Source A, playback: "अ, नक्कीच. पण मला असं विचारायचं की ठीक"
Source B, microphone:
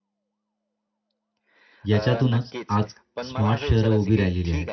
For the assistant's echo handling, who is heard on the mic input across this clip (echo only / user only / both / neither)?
both